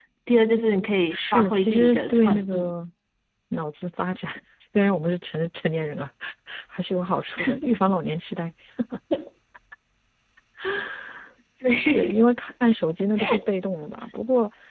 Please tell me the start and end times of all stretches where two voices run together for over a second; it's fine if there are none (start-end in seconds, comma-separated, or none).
1.1-2.7